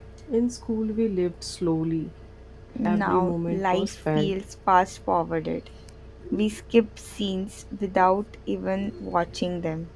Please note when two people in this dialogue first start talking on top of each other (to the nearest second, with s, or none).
3 s